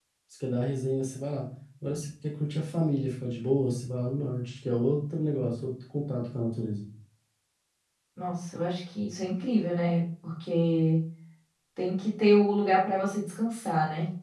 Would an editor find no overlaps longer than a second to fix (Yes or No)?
Yes